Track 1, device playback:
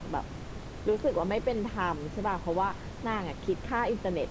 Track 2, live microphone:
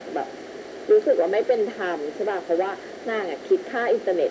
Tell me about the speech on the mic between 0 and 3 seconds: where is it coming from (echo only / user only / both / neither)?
echo only